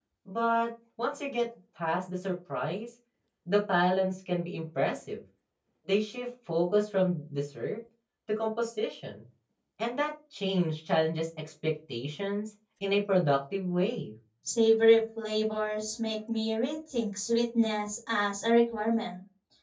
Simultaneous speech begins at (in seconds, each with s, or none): none